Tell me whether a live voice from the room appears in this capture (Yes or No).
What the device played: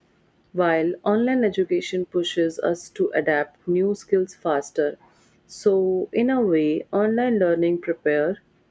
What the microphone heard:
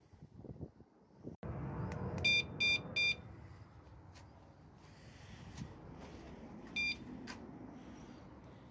No